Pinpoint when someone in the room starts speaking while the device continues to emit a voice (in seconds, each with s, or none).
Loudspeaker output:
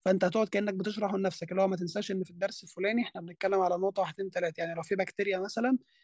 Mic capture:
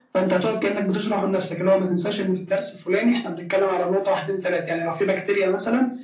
none